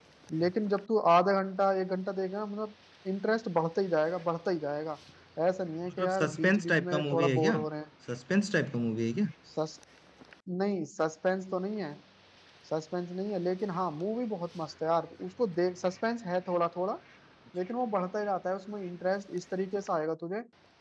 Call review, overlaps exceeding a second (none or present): present